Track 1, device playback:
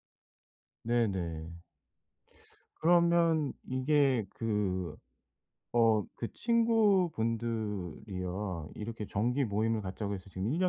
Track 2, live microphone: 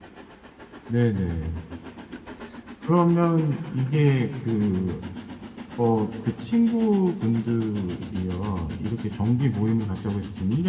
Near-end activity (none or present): none